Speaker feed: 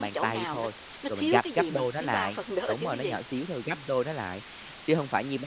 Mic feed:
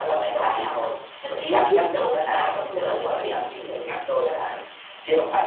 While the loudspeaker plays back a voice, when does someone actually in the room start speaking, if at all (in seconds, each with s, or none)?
1.5 s